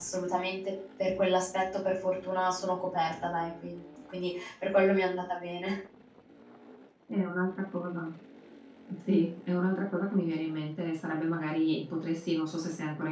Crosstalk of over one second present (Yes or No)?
No